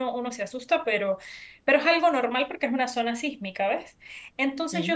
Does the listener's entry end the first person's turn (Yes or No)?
No